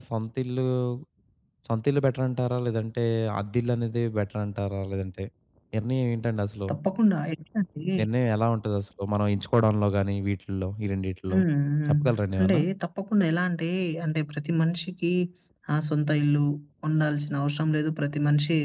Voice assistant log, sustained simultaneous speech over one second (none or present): none